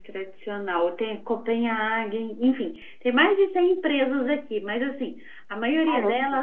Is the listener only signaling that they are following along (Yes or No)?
Yes